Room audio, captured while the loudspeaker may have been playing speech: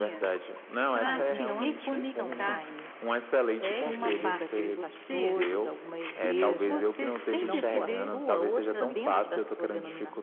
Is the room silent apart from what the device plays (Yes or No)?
No